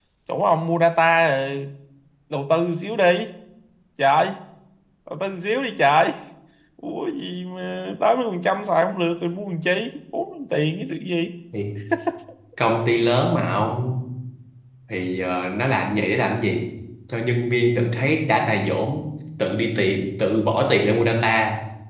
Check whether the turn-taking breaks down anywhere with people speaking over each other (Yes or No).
No